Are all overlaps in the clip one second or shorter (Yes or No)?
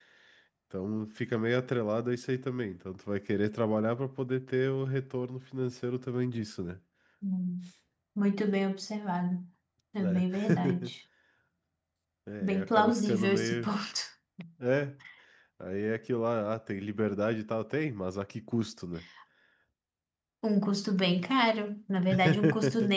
No